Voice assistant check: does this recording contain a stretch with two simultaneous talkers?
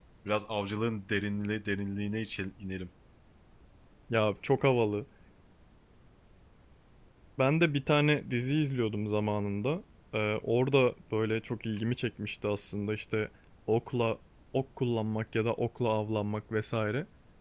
No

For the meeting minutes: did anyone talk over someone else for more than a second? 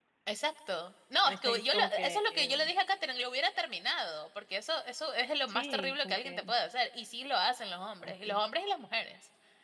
Yes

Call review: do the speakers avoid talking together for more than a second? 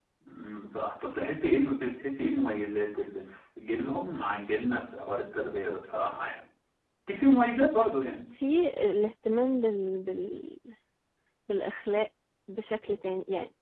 Yes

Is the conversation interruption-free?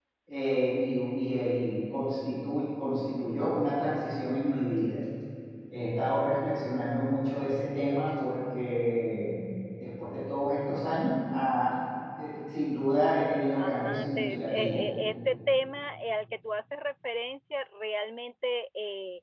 No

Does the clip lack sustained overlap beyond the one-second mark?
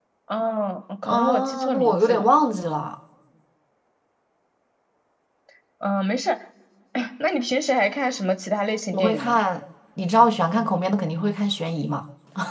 No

